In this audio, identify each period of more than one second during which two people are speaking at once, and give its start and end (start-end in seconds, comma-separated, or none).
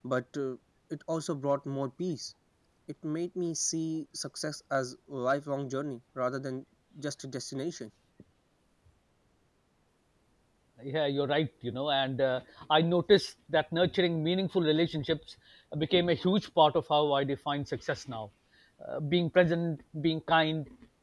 none